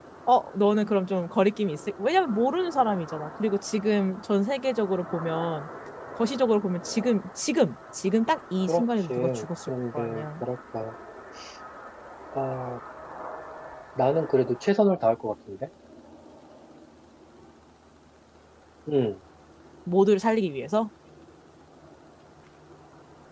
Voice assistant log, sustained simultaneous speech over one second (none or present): present